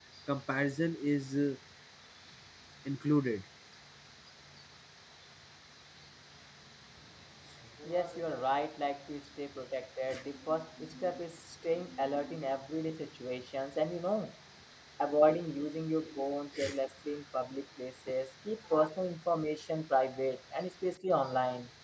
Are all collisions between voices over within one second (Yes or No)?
Yes